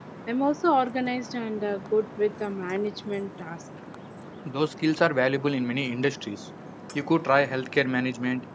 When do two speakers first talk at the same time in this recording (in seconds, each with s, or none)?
none